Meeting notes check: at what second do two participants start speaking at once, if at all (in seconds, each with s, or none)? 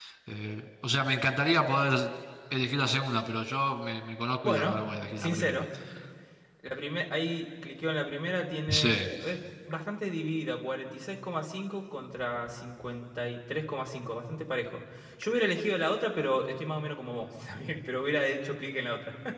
4.4 s